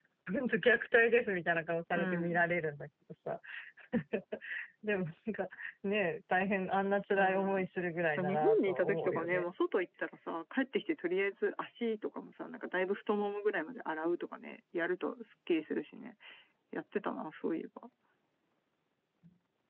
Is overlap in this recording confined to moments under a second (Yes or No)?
No